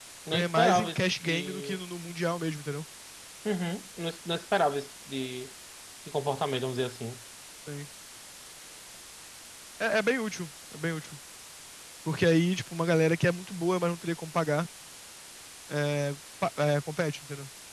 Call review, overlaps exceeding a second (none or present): present